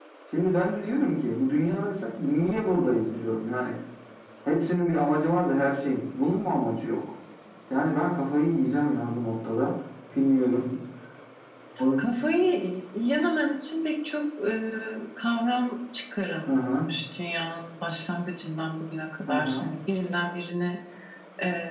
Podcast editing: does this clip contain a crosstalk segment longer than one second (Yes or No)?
No